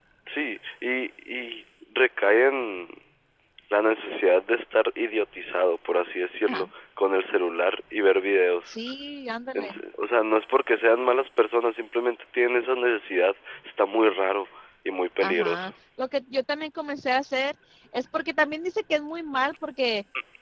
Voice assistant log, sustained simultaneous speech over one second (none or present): none